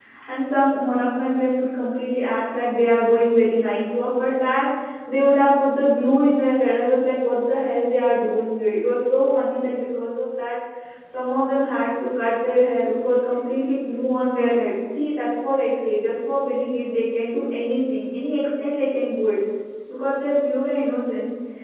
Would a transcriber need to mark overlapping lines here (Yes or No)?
No